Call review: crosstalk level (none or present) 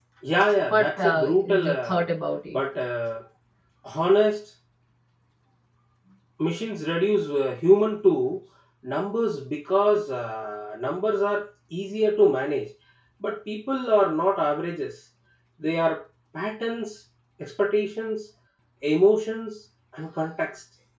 present